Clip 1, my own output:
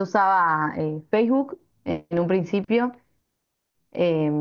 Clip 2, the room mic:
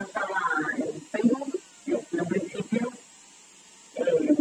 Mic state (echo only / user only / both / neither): echo only